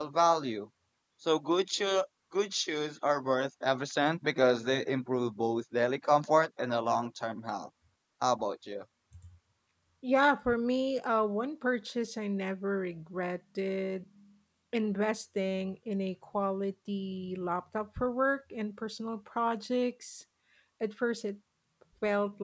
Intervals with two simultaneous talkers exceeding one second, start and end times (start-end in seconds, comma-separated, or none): none